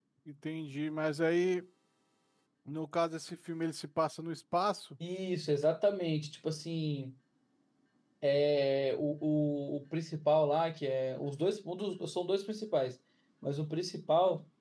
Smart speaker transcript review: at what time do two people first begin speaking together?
none

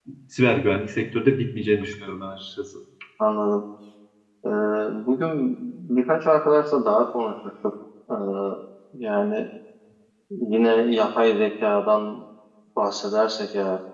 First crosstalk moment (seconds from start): none

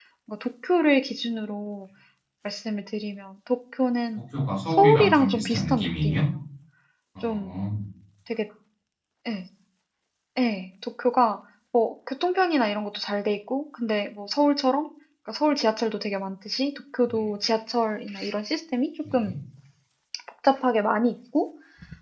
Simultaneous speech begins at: 4.7 s

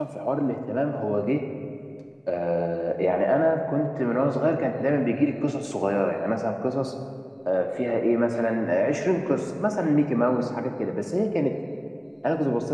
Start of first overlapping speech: none

